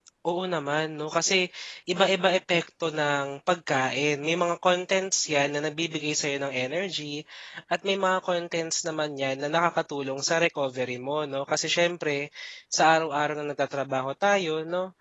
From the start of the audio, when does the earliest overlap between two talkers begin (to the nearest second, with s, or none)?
none